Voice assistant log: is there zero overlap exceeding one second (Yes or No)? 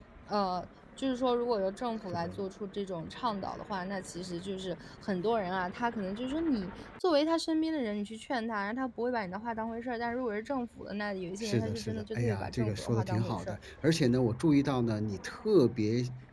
No